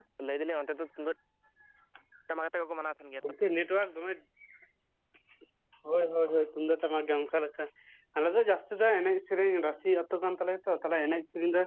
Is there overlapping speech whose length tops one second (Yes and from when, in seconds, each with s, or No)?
No